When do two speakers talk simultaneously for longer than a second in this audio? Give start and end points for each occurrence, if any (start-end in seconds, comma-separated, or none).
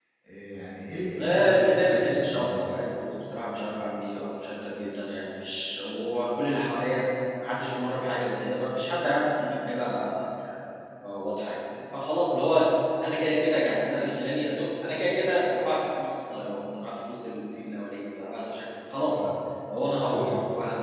1.2-2.7